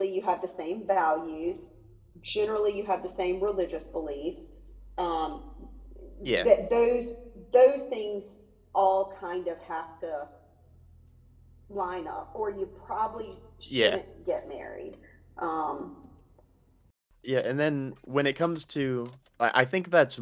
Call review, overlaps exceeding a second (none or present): none